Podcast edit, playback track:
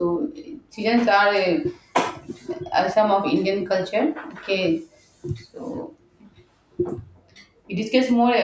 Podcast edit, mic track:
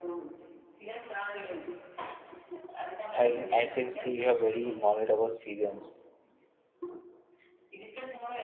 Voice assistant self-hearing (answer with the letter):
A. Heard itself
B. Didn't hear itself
A